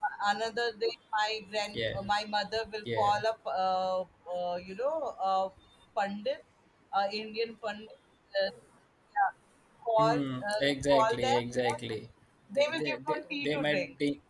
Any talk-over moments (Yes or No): Yes